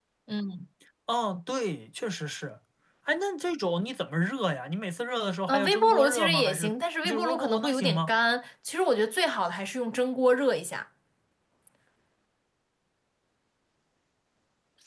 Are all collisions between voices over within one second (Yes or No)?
No